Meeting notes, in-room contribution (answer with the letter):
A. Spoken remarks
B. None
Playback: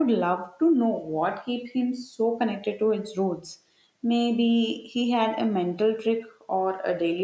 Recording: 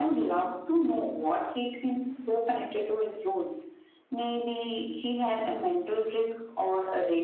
B